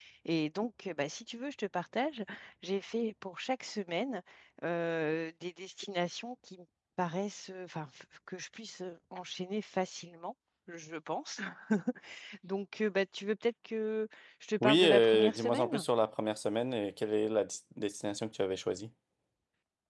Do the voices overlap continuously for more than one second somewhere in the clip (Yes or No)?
Yes